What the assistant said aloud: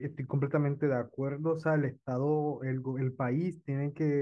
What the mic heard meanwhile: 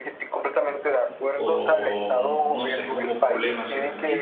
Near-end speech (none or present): present